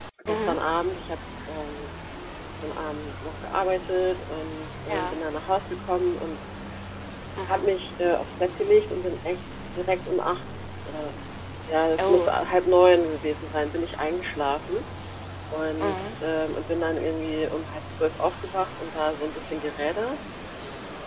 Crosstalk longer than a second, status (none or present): none